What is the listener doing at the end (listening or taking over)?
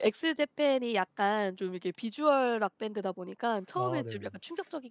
listening